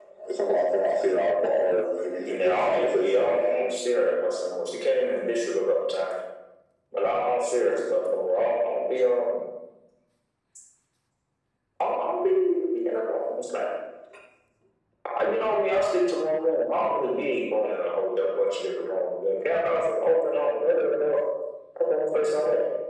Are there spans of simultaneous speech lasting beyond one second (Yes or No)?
Yes